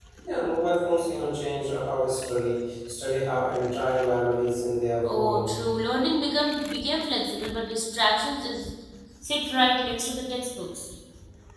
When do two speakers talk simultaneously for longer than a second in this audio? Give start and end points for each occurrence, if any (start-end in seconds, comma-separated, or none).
none